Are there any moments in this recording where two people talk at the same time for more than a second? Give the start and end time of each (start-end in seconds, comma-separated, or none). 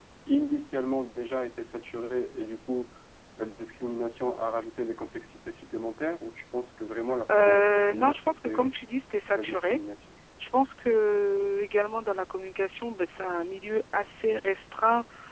7.3-8.7